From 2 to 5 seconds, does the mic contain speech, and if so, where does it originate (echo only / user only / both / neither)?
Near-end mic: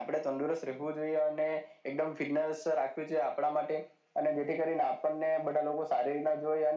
echo only